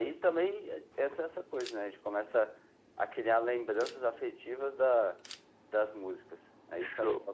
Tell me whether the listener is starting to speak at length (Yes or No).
Yes